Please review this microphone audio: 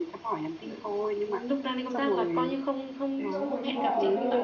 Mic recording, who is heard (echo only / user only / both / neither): both